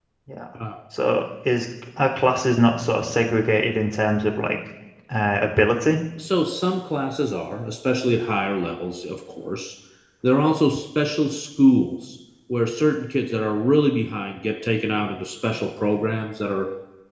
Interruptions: none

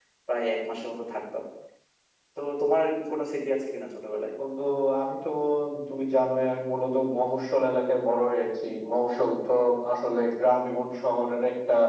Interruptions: none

